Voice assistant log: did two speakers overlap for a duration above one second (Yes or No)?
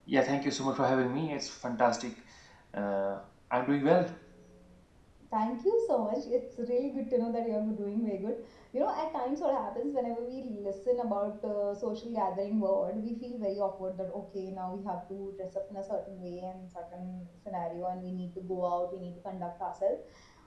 No